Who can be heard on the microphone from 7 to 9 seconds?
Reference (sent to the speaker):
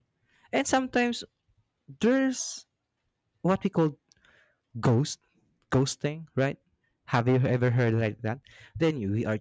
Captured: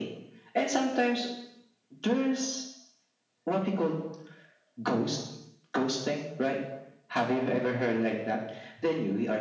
echo only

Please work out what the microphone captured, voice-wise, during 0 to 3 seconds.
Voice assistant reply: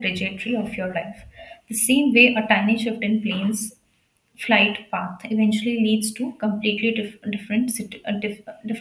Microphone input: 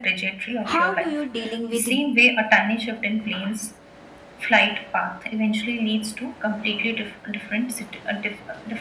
both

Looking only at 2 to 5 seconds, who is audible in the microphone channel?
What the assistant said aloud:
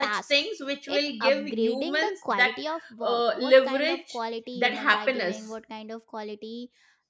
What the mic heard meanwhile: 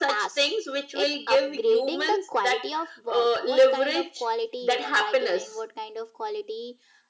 echo only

